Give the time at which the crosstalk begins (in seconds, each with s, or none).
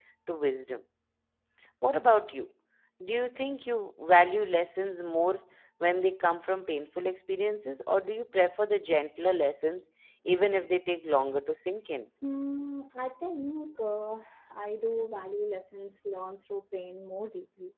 none